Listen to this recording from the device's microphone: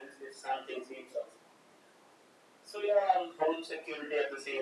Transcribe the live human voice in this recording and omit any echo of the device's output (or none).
none